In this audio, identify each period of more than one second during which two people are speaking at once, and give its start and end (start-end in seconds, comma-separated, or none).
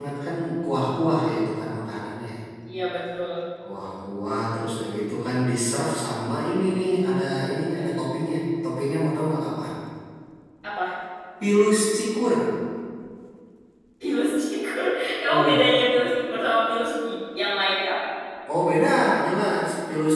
none